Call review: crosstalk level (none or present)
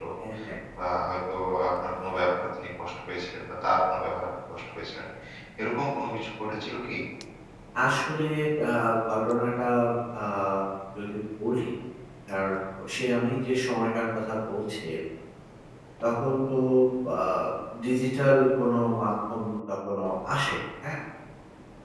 none